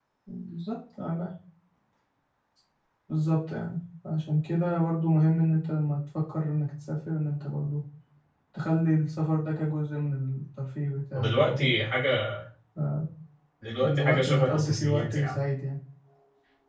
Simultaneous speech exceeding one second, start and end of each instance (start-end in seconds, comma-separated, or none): 13.8-15.4